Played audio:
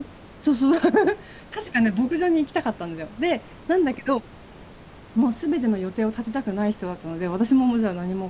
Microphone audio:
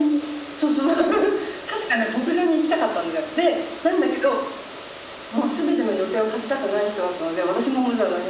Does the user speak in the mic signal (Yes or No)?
No